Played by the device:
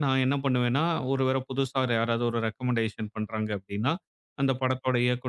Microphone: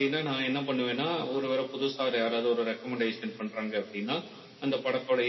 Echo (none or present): present